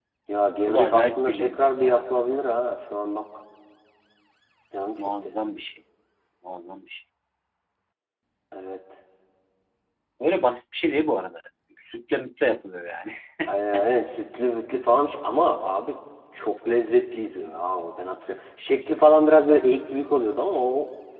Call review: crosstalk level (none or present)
present